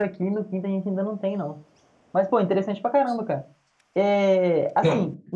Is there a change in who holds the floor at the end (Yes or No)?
No